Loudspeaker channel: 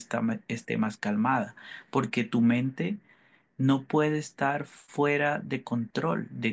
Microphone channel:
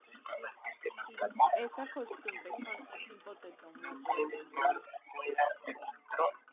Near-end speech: present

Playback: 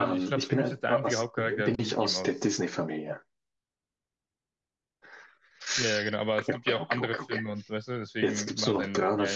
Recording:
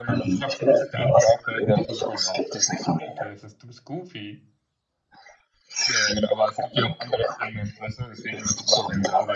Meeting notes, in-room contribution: present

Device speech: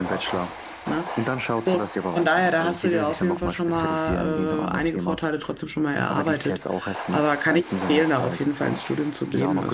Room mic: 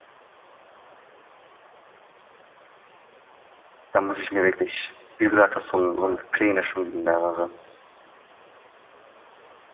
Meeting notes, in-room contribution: present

